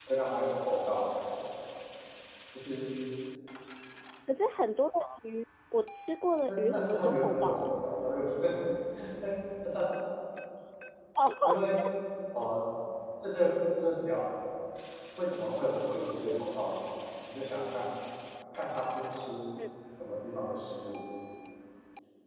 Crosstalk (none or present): present